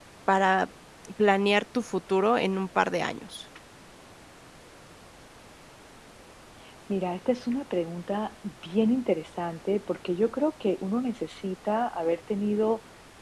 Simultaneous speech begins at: none

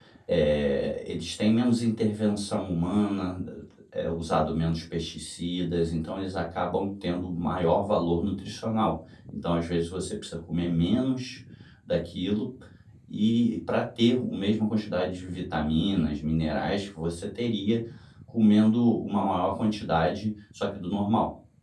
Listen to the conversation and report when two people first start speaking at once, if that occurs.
none

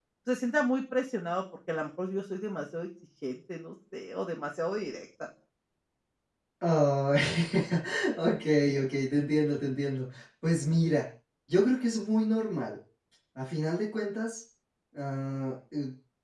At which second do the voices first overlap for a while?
none

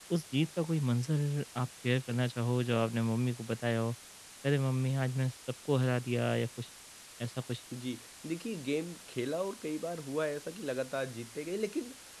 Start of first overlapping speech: none

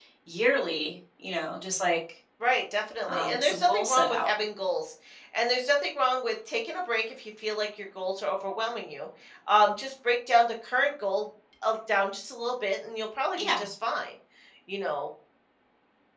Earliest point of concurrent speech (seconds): 3.1 s

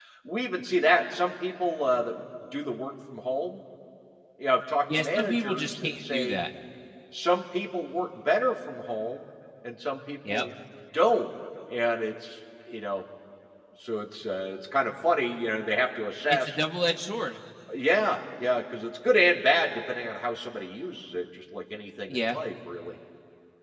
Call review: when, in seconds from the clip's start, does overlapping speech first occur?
4.9 s

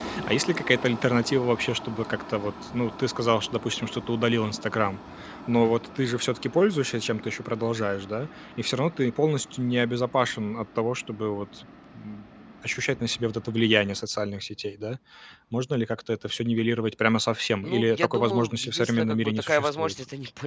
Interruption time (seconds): 17.6 s

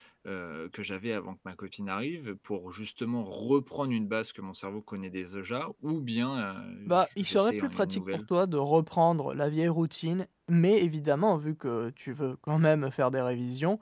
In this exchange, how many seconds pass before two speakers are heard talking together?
6.9 s

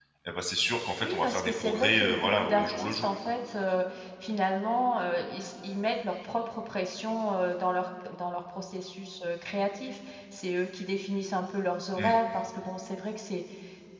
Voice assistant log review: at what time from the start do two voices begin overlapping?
1.0 s

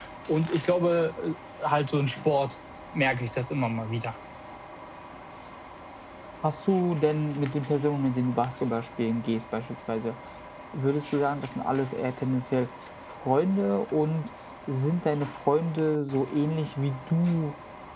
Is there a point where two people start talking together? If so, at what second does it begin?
none

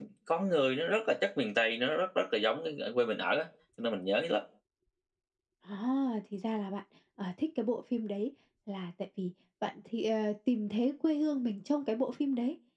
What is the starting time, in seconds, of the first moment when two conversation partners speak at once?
none

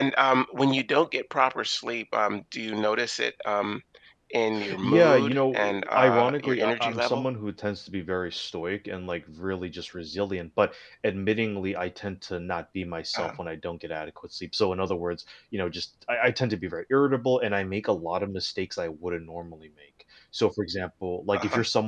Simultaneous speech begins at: 4.8 s

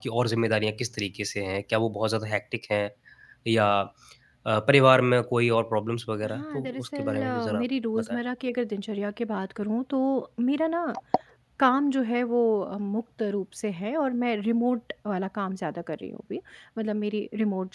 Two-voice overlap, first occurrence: 6.2 s

